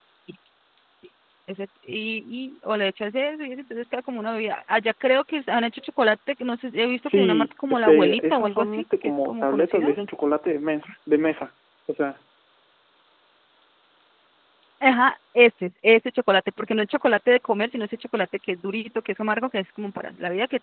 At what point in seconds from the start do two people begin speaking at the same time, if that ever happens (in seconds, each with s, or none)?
7.0 s